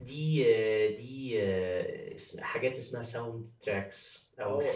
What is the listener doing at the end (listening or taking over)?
taking over